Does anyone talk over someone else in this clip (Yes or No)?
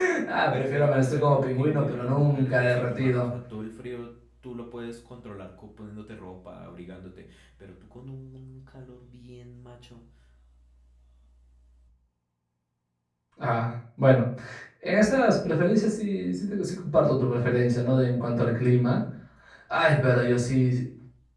Yes